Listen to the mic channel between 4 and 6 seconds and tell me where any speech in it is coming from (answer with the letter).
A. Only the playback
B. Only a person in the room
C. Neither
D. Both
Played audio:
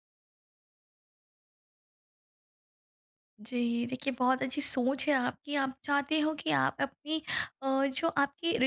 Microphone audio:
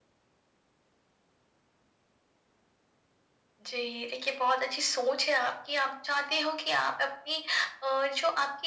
A